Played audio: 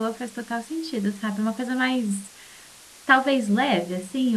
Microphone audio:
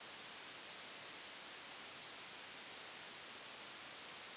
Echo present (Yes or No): No